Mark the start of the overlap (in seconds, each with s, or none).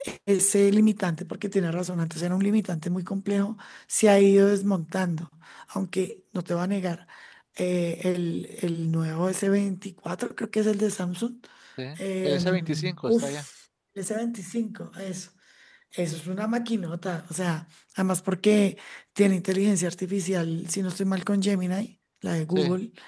12.2 s